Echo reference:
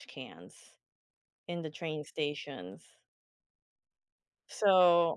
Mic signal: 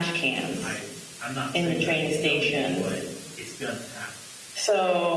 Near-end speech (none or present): present